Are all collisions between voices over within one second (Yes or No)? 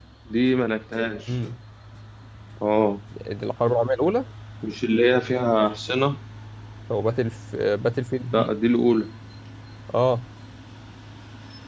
Yes